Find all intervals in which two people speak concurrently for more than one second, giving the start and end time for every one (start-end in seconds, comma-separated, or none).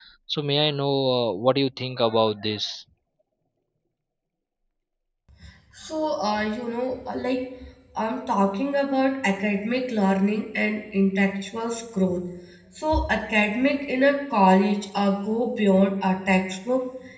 none